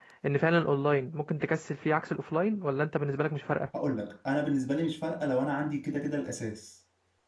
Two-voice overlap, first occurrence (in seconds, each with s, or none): none